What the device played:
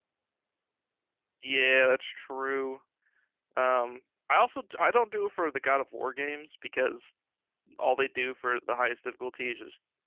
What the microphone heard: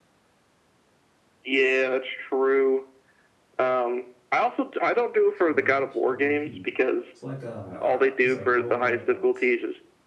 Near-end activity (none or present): present